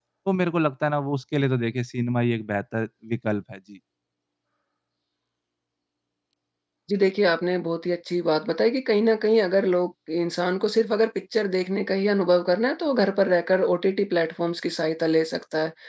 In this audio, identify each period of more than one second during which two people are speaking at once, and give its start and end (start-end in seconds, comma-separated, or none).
none